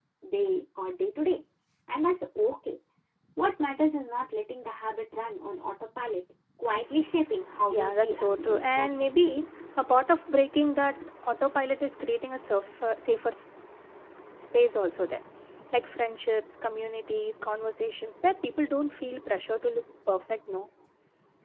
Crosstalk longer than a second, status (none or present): present